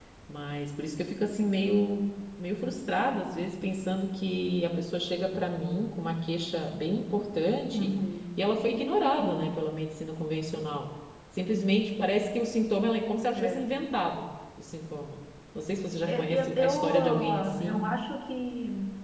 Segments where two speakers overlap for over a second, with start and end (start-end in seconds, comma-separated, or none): 16.1-17.8